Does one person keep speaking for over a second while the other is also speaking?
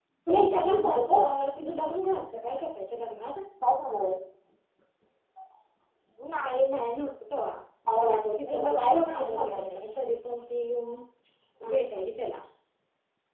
Yes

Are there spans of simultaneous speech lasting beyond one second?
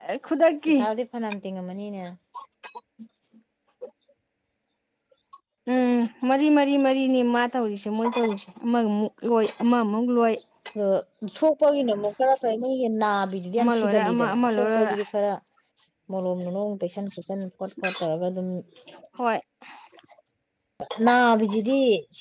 Yes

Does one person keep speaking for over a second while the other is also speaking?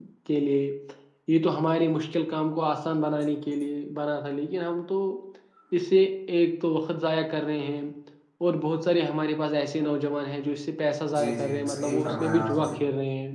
Yes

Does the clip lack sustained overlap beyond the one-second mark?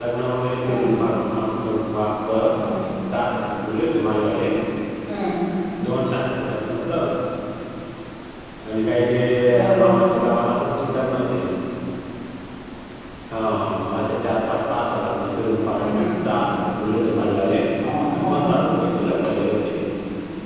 Yes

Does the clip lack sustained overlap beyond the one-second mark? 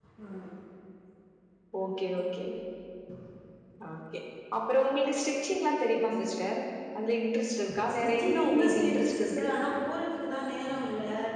No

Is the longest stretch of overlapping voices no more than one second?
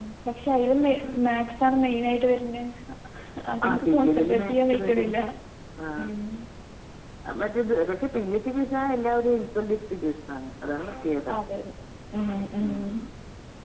No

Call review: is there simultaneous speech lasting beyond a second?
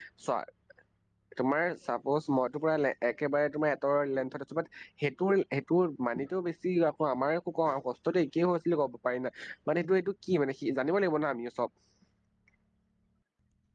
No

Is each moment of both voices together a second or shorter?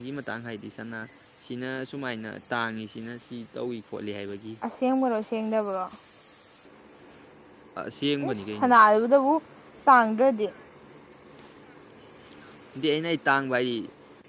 Yes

